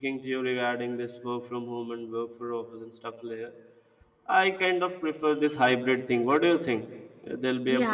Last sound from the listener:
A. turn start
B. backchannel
A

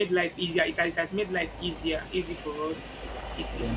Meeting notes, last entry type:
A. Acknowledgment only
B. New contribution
A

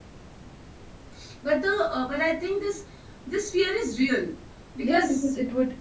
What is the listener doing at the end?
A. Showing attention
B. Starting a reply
B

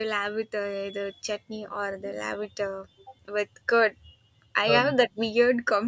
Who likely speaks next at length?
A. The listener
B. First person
B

